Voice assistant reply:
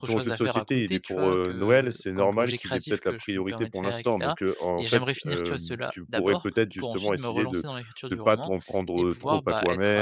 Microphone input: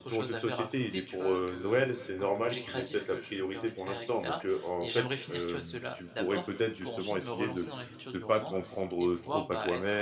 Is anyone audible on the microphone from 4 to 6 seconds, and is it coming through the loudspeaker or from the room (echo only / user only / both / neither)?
echo only